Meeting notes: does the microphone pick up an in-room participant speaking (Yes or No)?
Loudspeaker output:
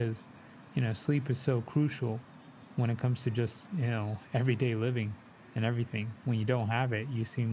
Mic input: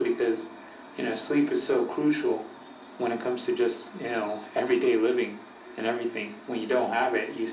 No